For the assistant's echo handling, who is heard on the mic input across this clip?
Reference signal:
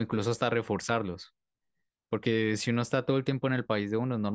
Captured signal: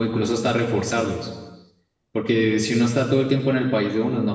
echo only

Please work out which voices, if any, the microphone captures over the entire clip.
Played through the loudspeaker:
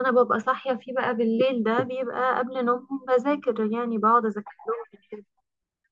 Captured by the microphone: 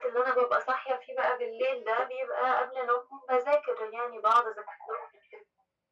echo only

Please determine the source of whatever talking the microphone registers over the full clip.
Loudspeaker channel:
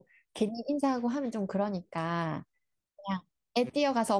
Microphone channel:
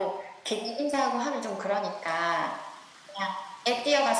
echo only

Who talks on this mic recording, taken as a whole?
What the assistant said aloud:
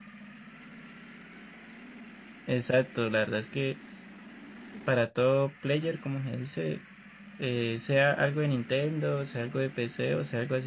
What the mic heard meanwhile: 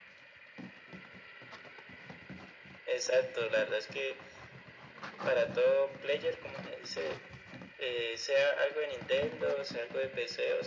echo only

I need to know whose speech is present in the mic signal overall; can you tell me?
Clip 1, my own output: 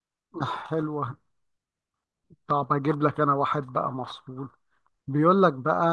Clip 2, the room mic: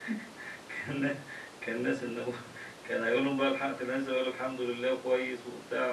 user only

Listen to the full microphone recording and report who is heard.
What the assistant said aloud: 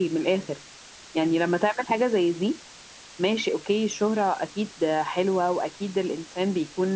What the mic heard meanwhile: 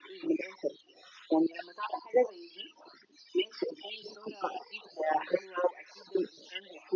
echo only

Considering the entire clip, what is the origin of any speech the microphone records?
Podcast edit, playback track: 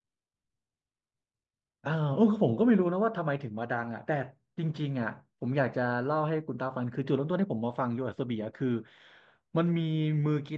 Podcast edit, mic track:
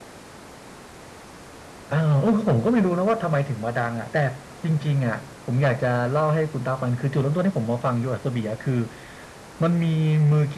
echo only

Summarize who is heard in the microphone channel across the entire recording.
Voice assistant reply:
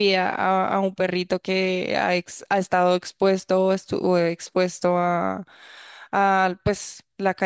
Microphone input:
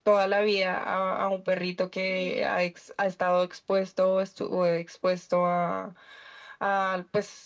both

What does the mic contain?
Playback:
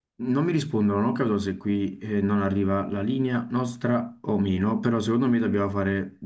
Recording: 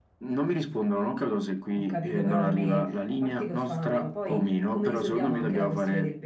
both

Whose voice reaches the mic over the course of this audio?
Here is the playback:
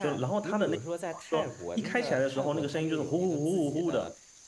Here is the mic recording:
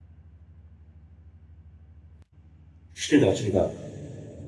user only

